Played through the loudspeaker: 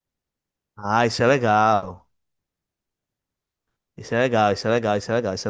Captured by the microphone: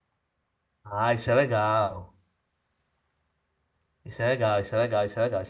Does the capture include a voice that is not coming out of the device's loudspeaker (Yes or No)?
No